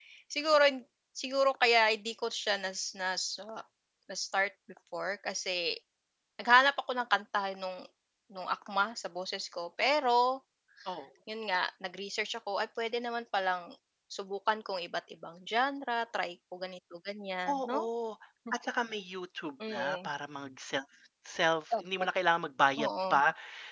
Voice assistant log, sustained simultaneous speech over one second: none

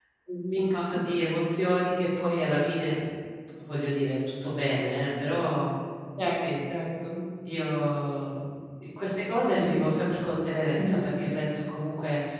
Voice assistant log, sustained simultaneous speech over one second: none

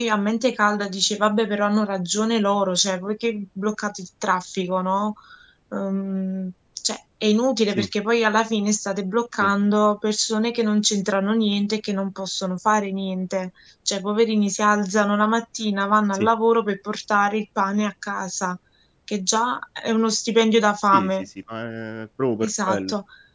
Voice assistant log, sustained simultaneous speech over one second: none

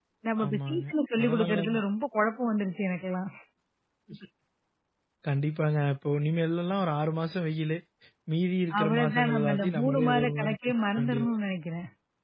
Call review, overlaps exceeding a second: present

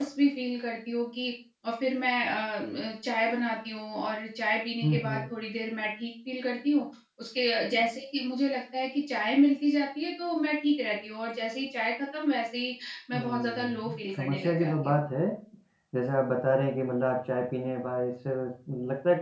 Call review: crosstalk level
present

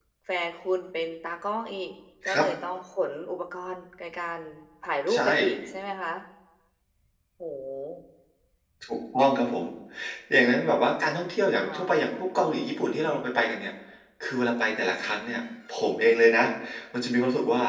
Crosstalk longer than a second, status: none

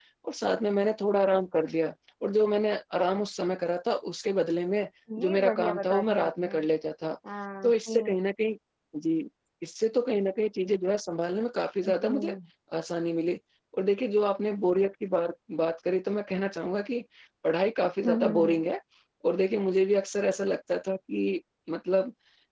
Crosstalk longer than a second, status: present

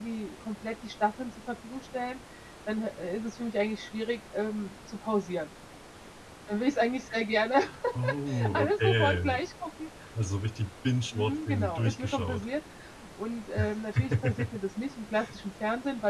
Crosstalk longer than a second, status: present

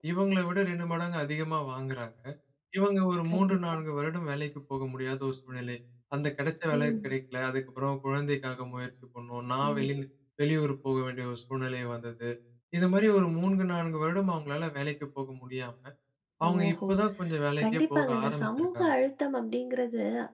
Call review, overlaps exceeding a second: present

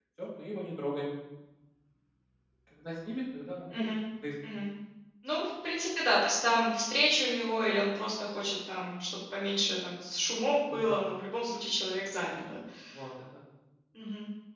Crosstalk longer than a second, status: none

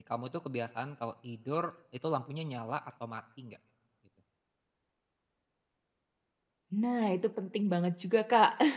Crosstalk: none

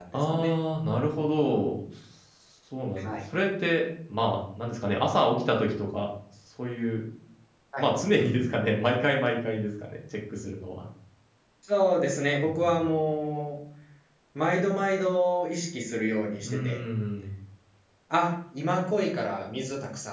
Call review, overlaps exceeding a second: none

